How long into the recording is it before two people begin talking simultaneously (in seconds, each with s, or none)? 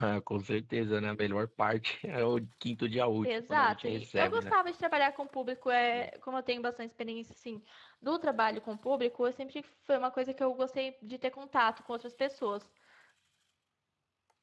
3.2 s